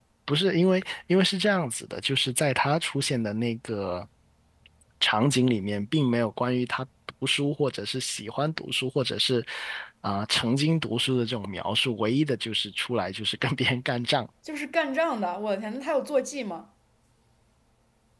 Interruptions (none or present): none